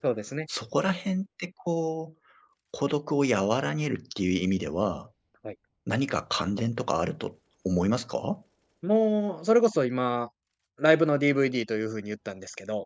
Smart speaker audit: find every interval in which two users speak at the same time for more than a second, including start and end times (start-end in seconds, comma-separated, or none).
none